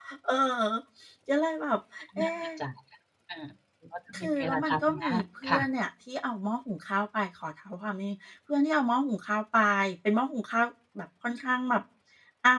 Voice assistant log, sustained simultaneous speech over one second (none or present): present